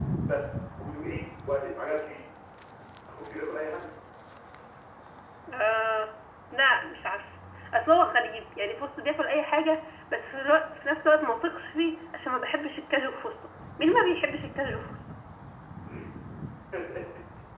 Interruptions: none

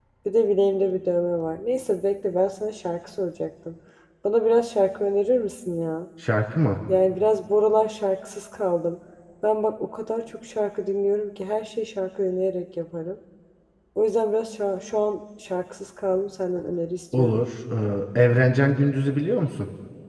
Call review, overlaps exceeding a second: none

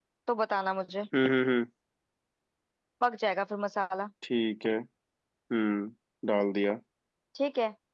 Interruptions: none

